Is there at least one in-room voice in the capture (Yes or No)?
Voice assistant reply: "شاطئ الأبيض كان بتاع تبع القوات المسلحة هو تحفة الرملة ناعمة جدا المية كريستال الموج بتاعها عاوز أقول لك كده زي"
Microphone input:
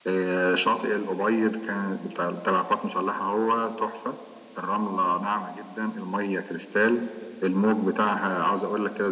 No